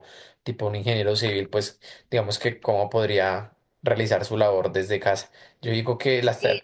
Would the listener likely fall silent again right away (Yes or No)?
Yes